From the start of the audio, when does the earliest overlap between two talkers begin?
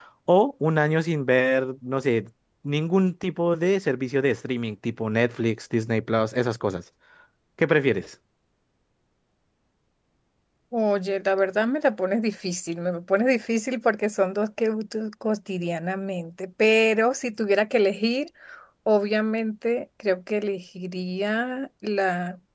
none

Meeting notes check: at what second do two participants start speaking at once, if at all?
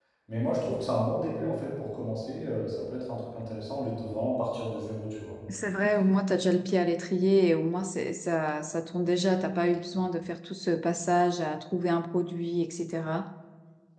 none

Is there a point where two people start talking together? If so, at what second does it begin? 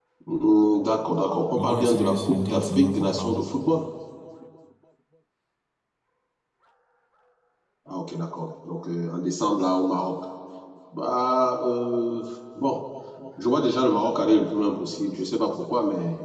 2 s

